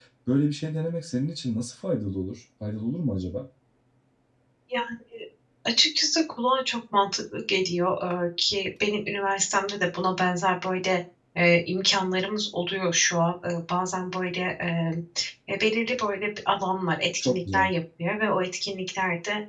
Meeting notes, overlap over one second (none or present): none